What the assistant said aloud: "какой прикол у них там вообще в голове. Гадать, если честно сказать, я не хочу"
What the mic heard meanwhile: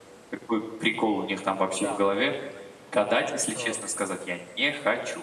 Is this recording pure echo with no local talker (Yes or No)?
No